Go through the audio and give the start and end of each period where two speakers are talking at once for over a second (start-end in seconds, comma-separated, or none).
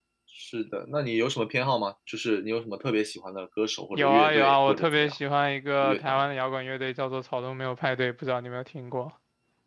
3.9-5.1